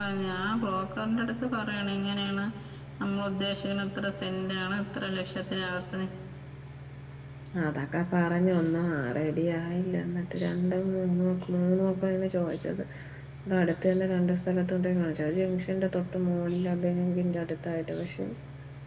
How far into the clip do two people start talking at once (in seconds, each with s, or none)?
none